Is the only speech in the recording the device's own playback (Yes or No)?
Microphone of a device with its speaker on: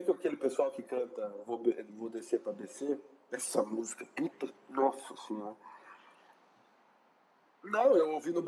Yes